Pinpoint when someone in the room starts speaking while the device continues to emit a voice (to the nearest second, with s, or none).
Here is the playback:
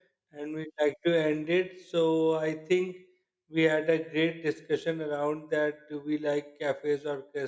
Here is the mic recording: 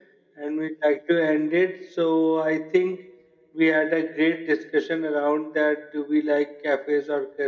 none